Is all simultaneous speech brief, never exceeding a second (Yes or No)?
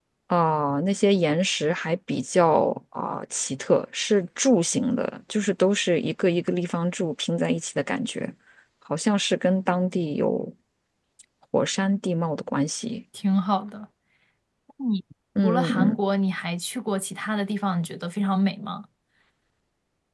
Yes